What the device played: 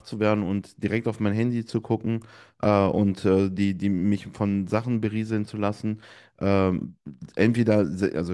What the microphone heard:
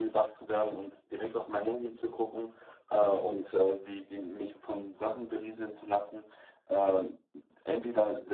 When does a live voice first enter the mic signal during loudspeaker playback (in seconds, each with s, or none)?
none